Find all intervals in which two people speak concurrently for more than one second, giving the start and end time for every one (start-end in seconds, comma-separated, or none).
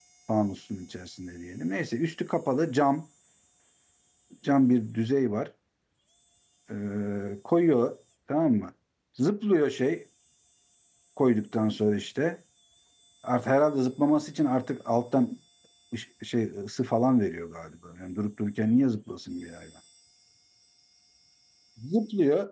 none